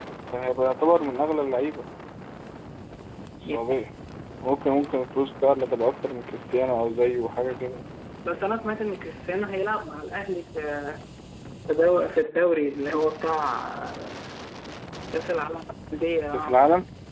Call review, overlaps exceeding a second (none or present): none